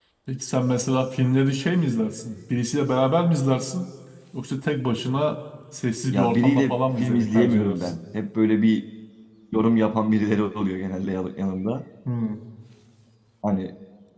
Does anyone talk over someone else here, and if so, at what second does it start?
6.1 s

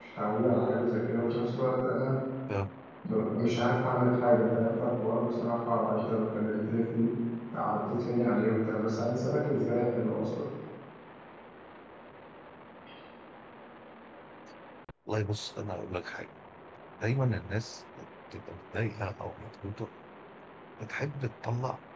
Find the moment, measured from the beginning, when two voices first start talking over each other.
none

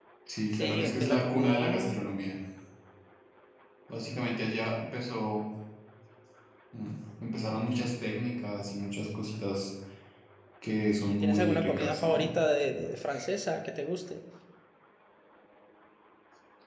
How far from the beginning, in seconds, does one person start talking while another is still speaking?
0.5 s

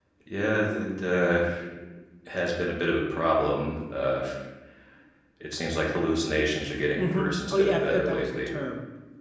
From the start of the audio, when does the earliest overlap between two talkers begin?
7.0 s

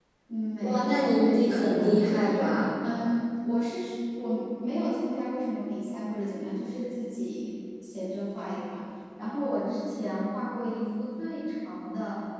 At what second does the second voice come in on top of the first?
0.6 s

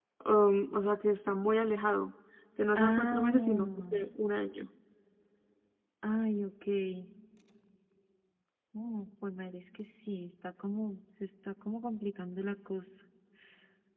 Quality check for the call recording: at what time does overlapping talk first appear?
2.8 s

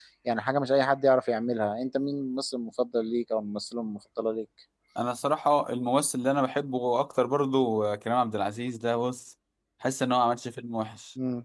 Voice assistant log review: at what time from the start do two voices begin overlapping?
none

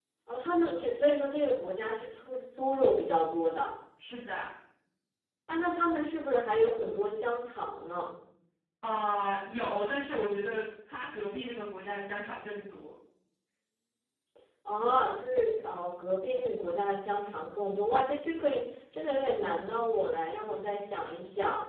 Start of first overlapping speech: none

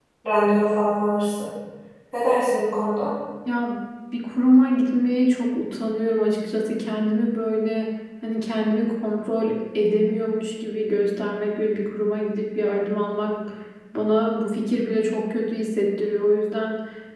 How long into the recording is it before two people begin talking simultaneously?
none

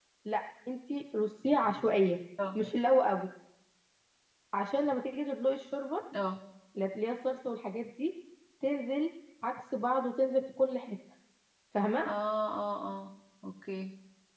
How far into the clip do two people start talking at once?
none

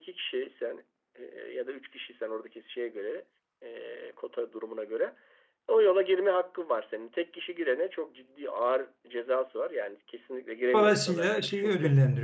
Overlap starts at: 10.7 s

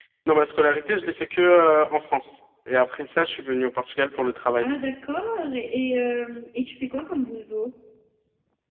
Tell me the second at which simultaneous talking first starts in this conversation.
none

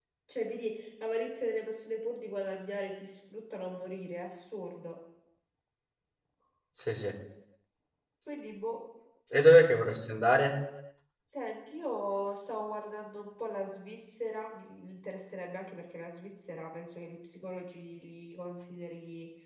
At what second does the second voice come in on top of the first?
none

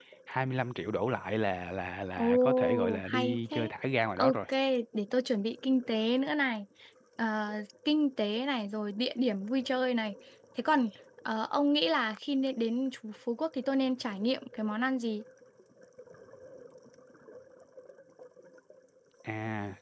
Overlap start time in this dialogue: 2.2 s

